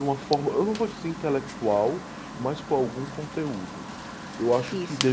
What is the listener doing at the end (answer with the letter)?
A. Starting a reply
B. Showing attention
B